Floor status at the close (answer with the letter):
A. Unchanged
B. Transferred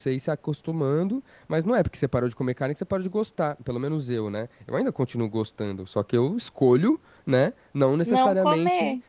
A